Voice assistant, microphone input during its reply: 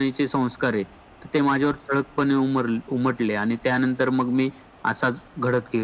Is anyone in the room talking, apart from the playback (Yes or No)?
No